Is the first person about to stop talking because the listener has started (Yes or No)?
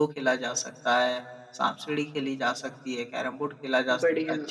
No